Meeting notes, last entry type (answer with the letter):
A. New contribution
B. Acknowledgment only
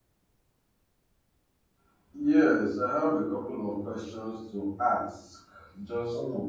B